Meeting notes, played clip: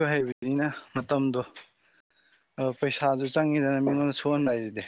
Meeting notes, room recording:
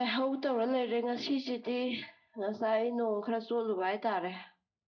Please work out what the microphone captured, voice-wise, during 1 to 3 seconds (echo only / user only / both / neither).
user only